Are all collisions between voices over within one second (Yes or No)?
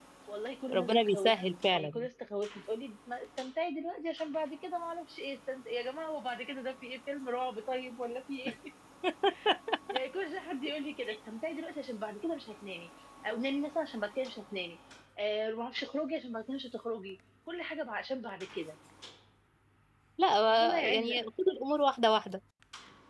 No